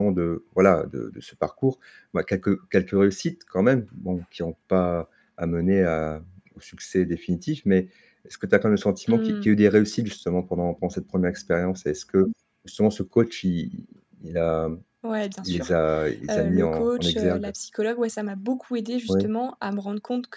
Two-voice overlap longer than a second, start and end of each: 16.3-17.5

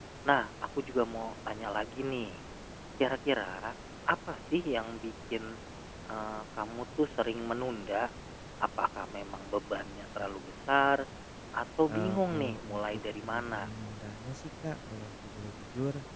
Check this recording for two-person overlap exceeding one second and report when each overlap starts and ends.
11.9-13.7

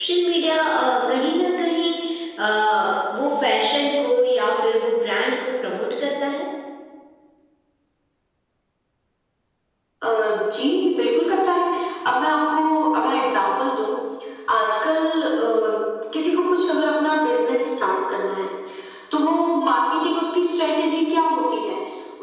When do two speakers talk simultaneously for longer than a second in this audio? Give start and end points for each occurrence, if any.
none

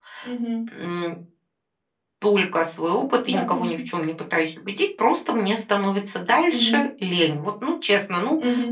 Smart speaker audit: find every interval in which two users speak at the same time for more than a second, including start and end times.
none

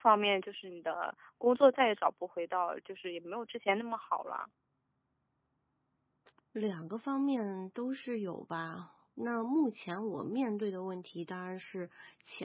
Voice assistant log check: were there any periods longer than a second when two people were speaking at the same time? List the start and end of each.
none

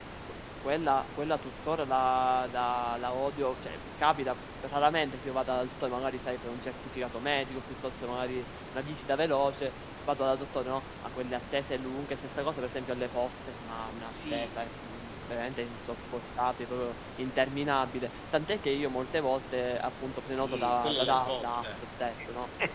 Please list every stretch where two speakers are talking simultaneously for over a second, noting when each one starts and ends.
20.2-21.6

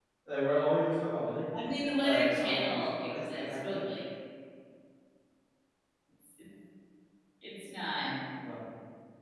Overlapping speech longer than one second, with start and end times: 2.0-3.8

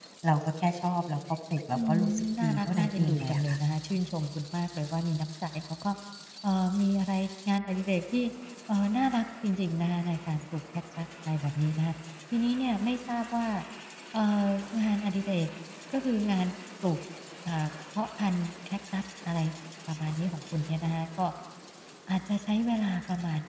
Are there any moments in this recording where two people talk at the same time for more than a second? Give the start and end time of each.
1.7-3.6

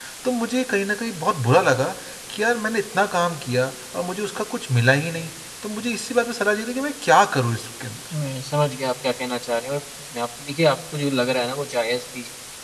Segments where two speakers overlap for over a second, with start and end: none

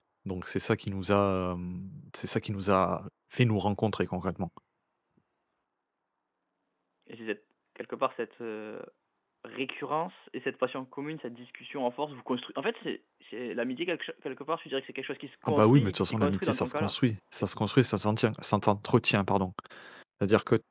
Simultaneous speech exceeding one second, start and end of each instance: 15.5-16.9

